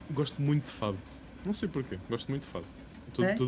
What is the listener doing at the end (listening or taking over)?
taking over